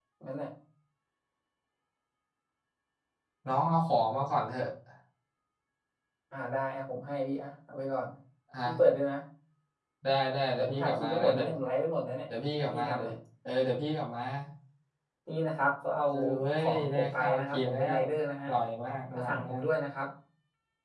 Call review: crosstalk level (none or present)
present